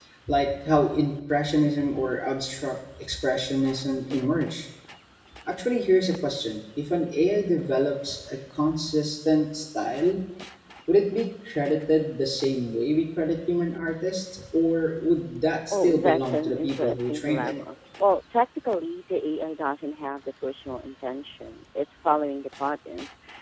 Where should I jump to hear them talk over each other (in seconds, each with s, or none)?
15.6 s